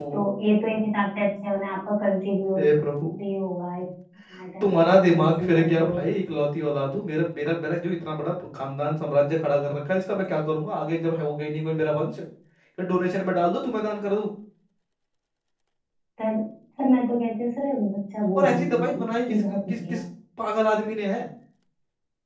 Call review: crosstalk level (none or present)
present